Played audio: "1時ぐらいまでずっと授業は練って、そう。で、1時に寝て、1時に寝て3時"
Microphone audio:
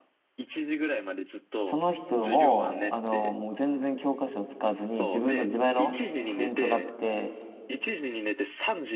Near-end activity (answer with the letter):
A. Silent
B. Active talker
B